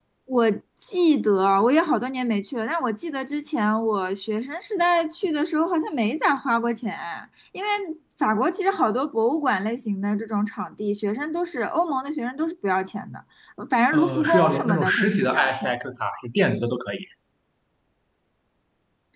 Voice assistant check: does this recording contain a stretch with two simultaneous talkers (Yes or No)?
Yes